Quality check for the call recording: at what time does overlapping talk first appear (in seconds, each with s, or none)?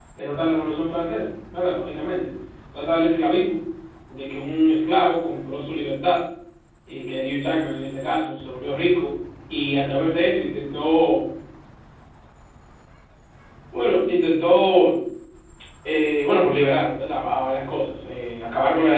none